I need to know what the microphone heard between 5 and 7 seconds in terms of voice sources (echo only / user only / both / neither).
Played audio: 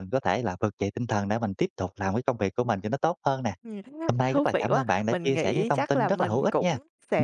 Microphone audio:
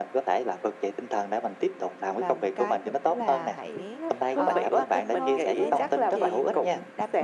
both